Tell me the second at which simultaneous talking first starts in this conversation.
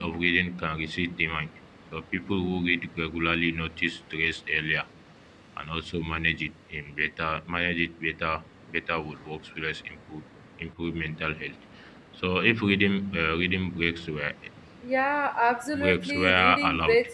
15.7 s

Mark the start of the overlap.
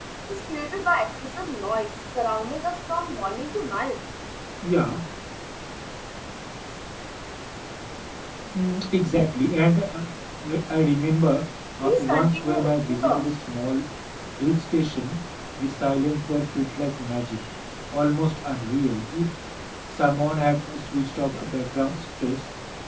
11.8 s

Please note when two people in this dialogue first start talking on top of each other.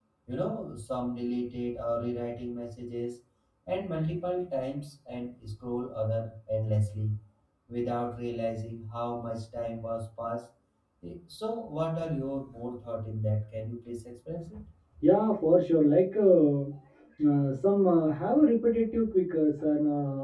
none

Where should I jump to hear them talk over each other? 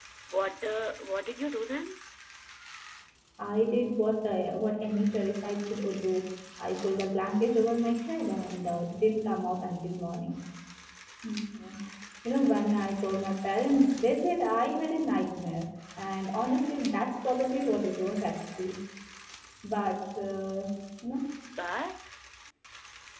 none

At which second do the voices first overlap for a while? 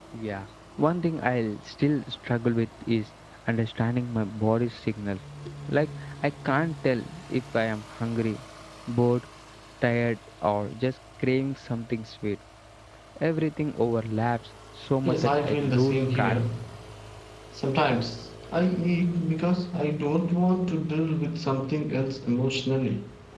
15.1 s

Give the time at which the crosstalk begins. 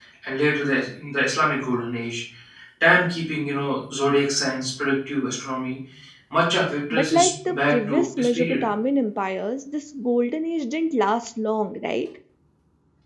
6.9 s

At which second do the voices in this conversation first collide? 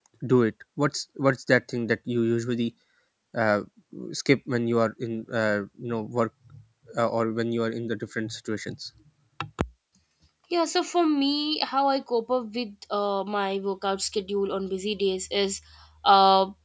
none

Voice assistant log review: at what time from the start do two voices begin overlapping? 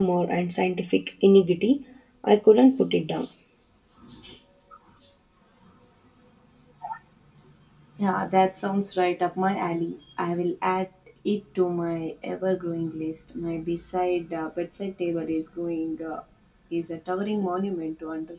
none

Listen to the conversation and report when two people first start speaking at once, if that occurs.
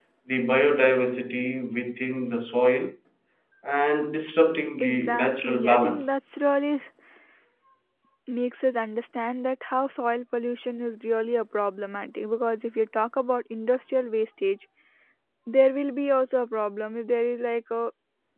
4.8 s

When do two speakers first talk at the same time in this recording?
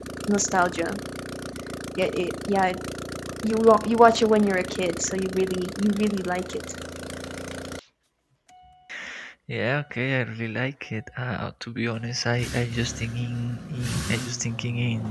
none

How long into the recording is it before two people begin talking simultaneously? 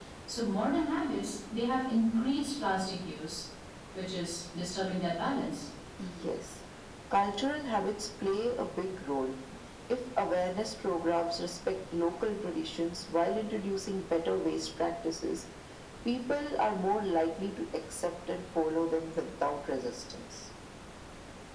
none

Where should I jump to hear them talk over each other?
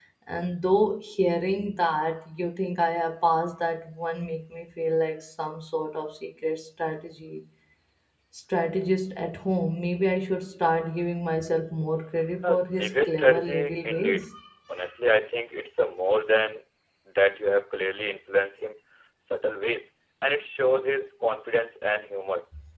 12.4 s

